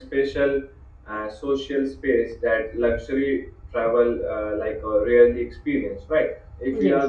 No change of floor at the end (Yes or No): Yes